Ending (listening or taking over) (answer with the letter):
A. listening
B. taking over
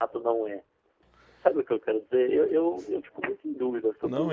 B